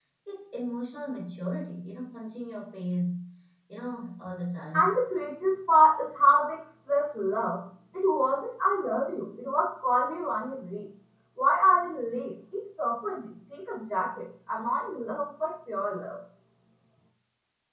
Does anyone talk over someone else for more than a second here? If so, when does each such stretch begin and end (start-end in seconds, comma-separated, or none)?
none